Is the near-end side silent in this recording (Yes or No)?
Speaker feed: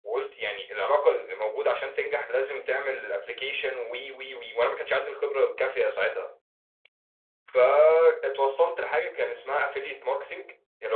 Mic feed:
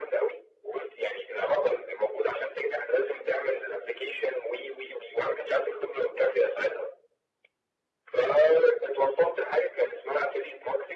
Yes